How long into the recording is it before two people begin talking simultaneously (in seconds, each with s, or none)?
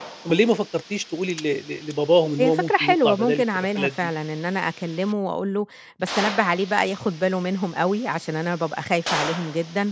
2.4 s